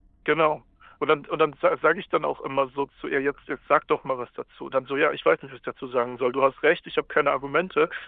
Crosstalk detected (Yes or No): No